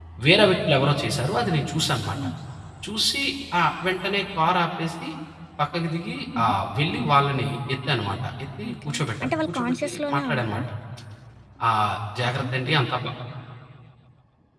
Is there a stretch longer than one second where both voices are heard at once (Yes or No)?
Yes